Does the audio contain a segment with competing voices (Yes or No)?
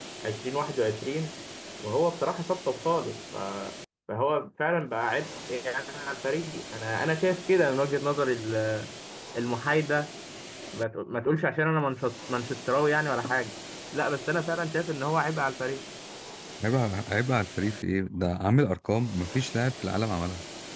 No